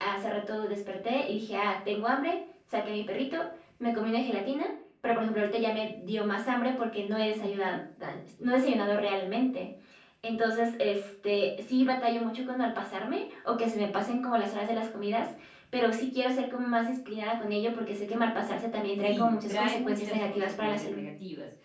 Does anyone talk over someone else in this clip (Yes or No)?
Yes